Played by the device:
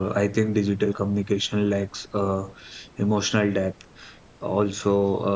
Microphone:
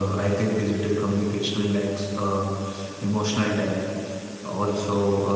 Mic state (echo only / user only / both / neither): echo only